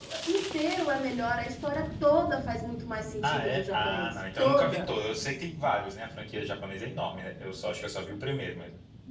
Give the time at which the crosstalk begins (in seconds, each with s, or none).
3.2 s